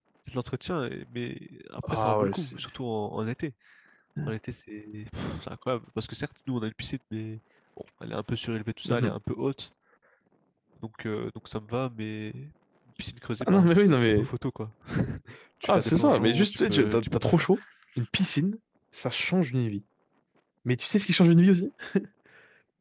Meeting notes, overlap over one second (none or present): present